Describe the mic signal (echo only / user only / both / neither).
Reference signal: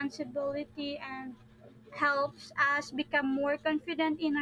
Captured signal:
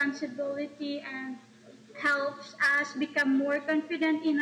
echo only